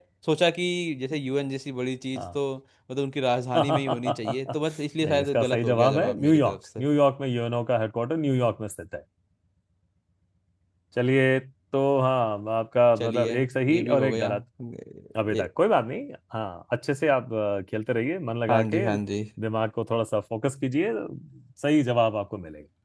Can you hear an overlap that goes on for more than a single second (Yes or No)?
Yes